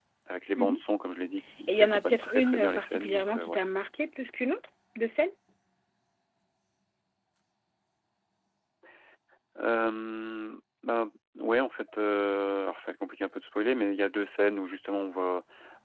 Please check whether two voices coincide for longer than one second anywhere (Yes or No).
Yes